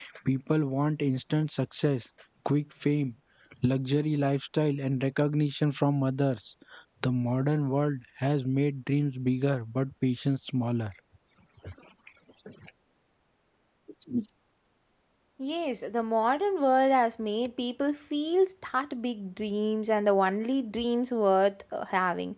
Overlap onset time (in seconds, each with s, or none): none